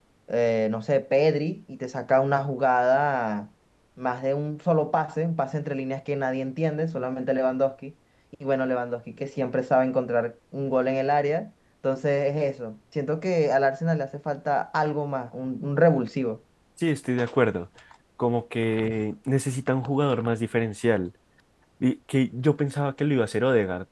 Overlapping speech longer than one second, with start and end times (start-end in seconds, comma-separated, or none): none